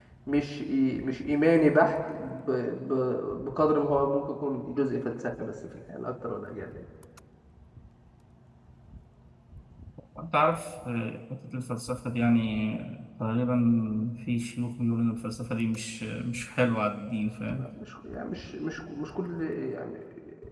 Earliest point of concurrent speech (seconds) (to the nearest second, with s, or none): none